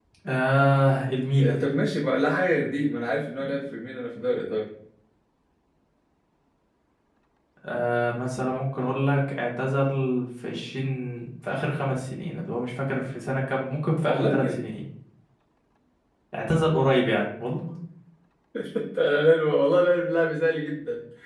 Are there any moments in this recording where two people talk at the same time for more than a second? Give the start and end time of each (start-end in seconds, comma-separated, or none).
none